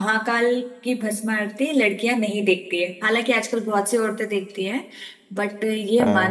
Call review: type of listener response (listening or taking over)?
listening